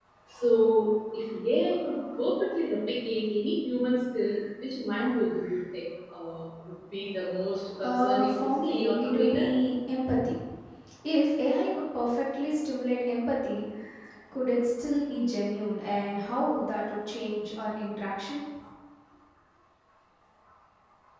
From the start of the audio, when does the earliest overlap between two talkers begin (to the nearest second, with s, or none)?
8 s